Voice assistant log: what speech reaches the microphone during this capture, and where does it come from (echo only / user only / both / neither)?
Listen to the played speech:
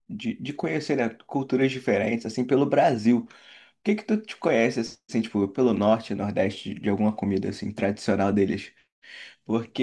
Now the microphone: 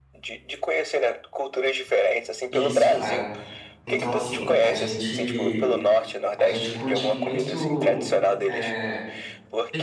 both